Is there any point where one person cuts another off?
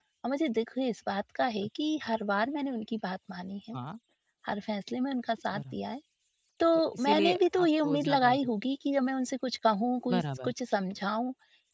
Yes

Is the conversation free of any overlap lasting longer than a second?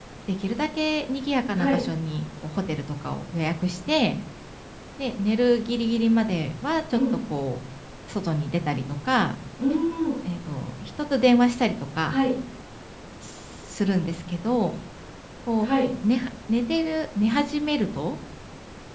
Yes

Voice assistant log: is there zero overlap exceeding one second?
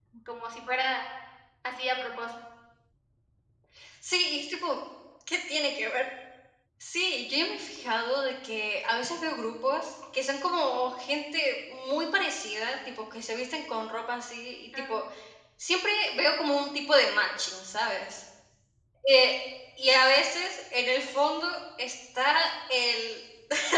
Yes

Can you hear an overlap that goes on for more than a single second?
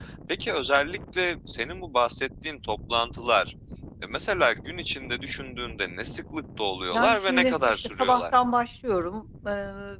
Yes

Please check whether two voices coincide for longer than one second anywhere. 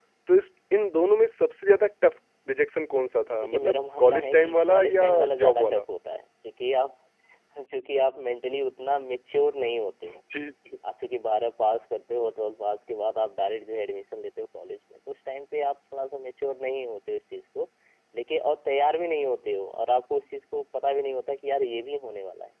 Yes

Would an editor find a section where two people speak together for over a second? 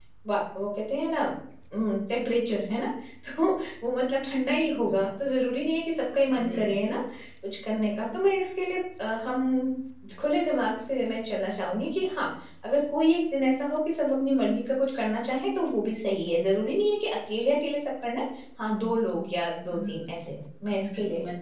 No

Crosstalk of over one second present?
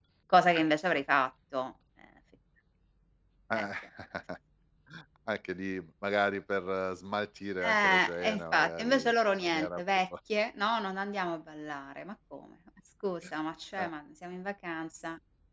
Yes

